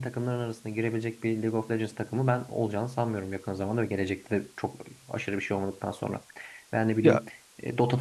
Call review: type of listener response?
listening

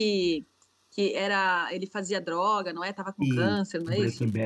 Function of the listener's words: taking over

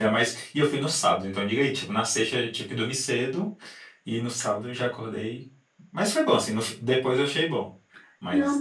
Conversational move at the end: taking over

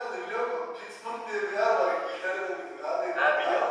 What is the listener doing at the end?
listening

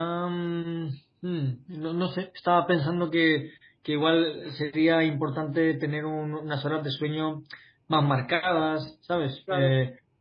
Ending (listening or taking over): listening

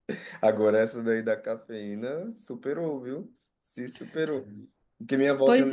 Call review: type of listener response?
listening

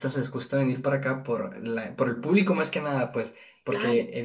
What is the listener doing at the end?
listening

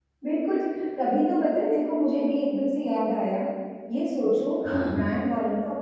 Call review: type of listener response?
listening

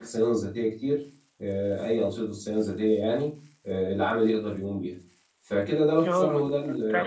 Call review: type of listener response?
taking over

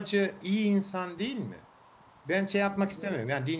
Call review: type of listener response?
listening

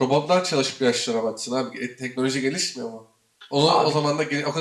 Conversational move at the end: listening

